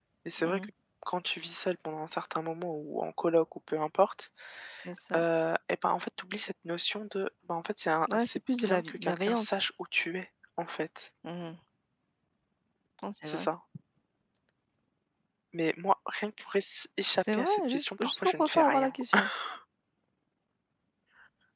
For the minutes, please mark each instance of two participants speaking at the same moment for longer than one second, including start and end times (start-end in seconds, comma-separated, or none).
8.1-9.7, 17.2-18.9